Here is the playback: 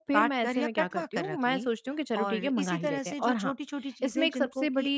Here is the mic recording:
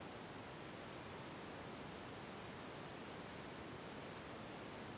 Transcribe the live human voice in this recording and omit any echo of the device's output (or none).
none